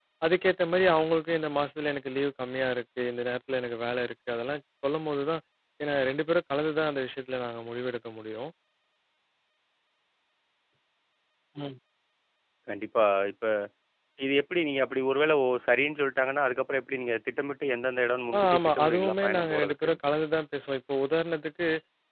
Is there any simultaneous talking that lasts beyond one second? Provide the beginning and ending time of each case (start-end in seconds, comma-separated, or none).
18.4-19.9